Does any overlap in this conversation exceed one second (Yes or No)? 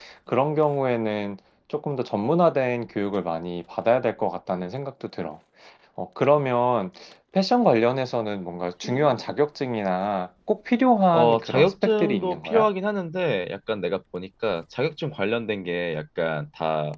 Yes